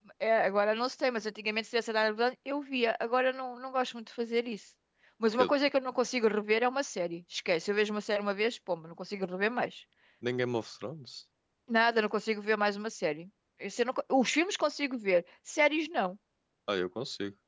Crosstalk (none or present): none